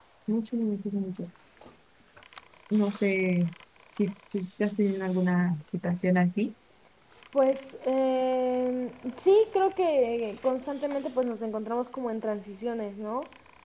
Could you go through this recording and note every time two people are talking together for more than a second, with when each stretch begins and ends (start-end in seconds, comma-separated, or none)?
none